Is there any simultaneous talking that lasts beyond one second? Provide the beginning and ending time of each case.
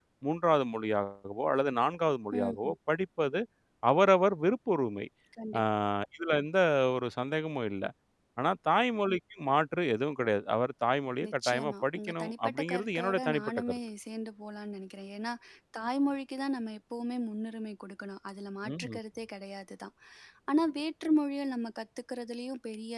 11.2-13.8

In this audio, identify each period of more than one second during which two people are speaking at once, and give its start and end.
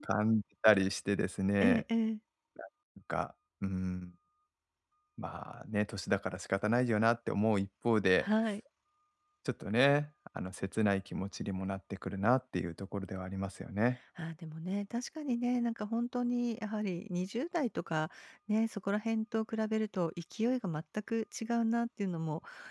none

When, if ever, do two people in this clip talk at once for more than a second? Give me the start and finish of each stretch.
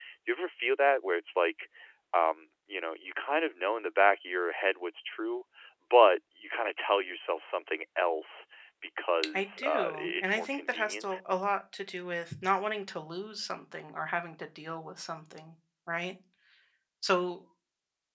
9.3-11.2

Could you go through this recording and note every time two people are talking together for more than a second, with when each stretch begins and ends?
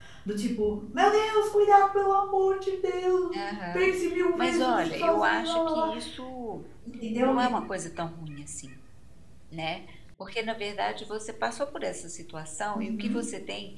4.3-5.9

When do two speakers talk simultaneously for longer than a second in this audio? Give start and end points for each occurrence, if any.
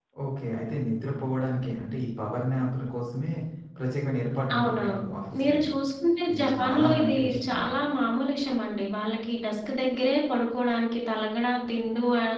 6.3-7.7

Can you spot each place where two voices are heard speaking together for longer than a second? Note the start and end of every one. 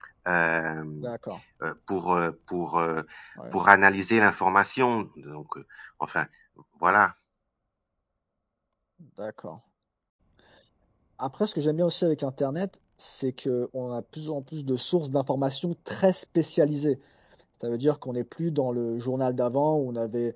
none

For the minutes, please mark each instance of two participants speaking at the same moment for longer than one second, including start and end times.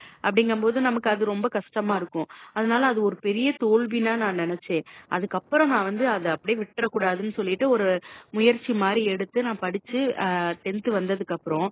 none

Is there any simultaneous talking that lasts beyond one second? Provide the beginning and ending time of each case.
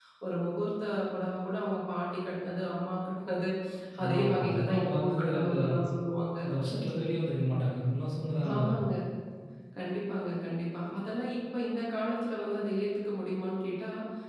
4.0-5.5

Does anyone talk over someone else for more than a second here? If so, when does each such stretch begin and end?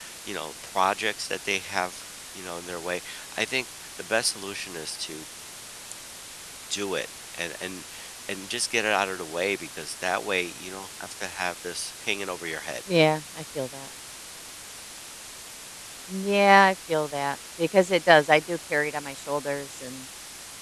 none

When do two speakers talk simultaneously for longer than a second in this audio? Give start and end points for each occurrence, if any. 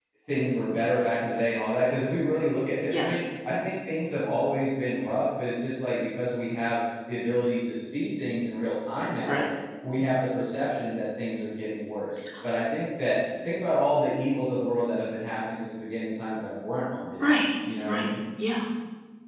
none

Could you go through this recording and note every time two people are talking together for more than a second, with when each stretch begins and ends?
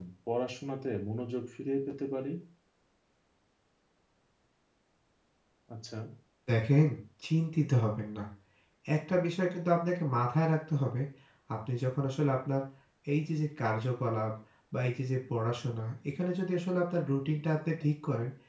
none

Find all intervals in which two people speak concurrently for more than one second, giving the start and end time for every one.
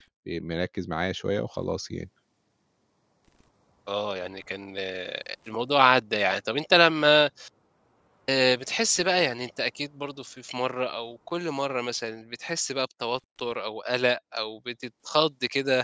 none

